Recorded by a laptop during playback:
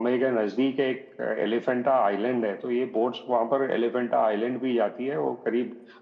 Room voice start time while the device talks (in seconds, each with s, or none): none